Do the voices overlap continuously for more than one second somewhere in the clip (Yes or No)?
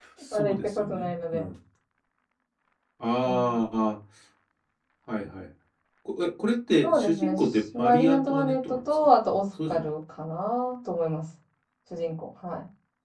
Yes